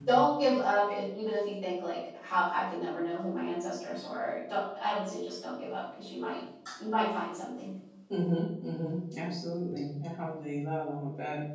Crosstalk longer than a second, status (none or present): none